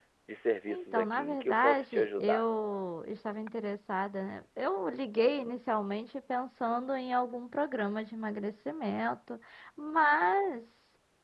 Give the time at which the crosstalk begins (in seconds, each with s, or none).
0.7 s